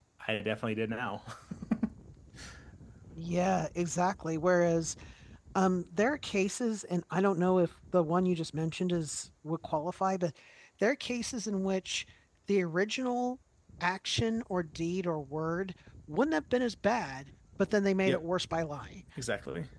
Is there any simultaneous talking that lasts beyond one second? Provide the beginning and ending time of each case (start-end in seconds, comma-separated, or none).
none